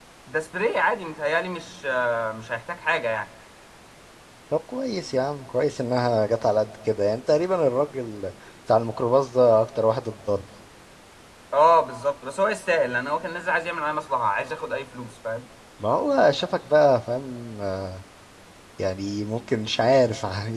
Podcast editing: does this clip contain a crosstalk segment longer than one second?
No

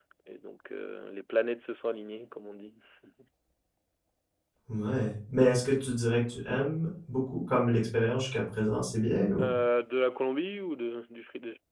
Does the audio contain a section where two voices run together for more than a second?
No

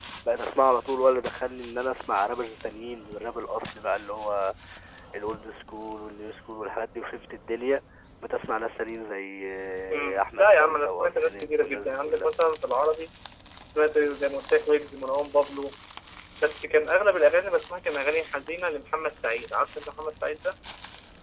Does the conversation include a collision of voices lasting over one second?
Yes, from 9.9 s

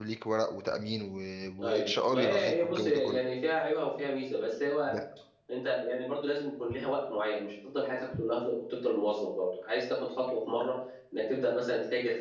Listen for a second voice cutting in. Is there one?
Yes, from 1.6 s

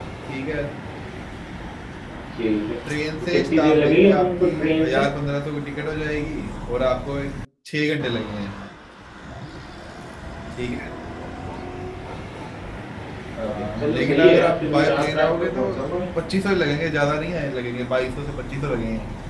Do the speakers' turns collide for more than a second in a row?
Yes, from 3.3 s

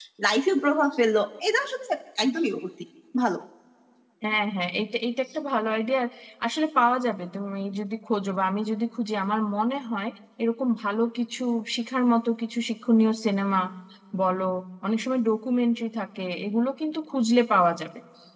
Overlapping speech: No

